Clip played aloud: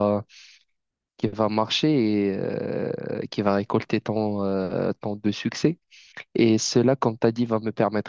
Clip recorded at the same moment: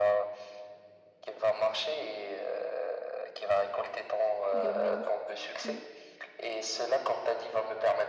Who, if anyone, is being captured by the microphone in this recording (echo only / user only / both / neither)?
both